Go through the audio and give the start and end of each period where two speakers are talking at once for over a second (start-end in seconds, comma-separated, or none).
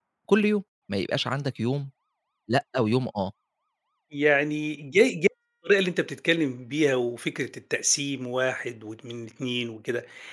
none